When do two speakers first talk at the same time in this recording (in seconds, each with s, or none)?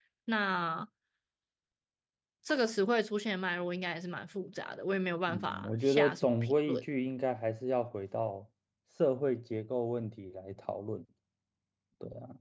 5.3 s